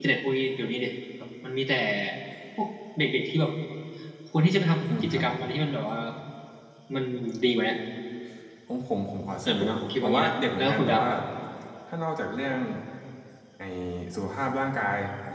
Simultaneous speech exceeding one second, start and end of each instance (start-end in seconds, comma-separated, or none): 9.5-11.1